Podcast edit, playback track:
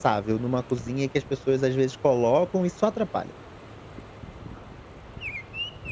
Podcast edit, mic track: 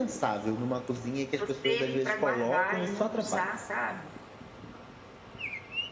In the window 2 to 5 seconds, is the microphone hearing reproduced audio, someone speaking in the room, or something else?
both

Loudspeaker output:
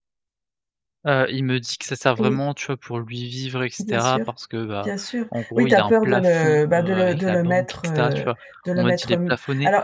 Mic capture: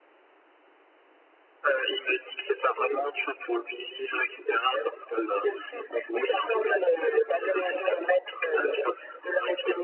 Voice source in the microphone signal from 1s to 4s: echo only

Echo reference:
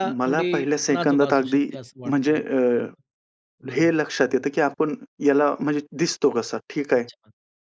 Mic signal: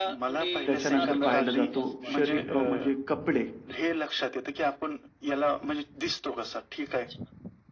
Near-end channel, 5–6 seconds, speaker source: echo only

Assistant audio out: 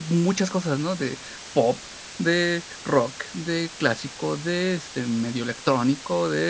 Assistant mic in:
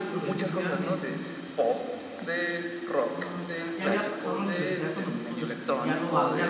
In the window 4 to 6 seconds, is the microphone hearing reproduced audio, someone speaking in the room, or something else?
both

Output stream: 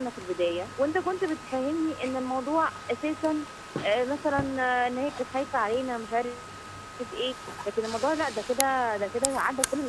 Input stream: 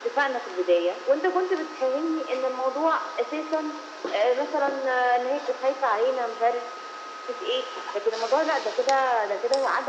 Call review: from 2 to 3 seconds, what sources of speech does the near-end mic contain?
echo only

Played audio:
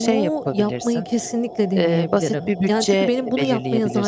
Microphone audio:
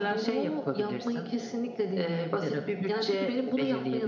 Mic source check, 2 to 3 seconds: echo only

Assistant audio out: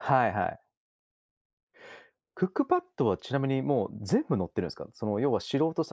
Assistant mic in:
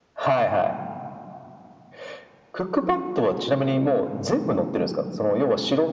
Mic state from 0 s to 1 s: echo only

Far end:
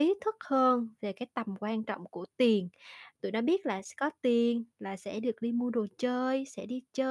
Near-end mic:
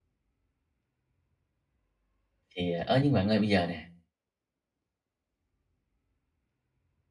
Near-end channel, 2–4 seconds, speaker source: user only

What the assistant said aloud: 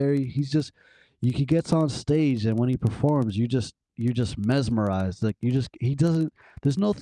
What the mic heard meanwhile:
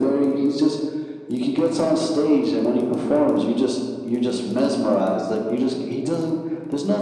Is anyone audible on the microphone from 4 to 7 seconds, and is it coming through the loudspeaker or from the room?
echo only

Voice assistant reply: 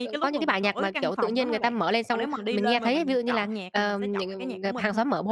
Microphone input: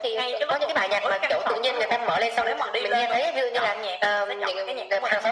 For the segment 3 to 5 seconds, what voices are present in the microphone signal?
echo only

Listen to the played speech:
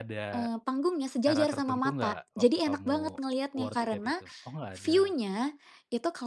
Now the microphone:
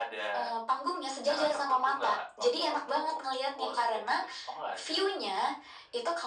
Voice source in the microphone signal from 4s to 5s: echo only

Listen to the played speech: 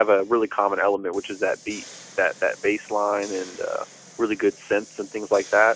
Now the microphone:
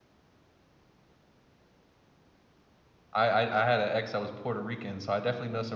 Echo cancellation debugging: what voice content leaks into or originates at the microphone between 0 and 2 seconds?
neither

